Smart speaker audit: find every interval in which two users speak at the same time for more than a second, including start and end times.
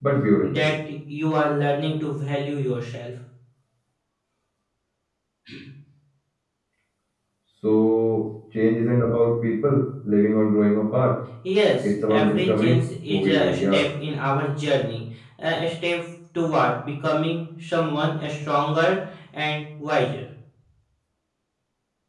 12.1-13.8

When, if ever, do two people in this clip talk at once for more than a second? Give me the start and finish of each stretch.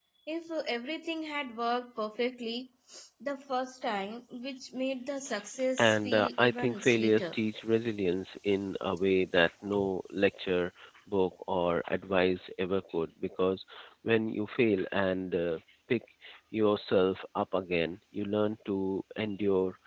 5.8-7.3

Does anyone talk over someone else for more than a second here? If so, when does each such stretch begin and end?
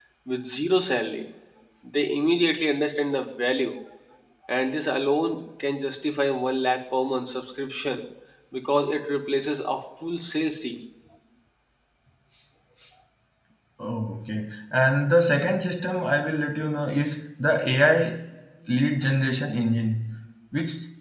none

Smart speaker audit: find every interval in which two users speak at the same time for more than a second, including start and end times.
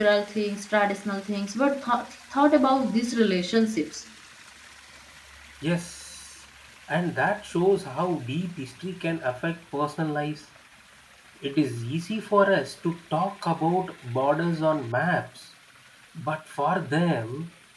none

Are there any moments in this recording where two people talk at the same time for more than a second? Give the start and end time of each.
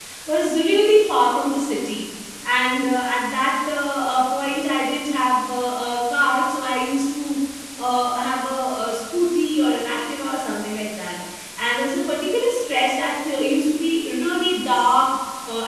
none

